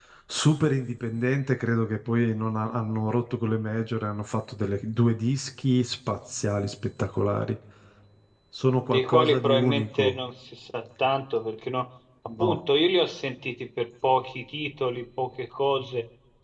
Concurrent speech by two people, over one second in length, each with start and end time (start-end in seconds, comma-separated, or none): 8.7-10.2